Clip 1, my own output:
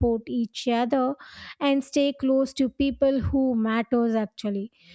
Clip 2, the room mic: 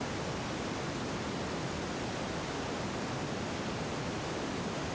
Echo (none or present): none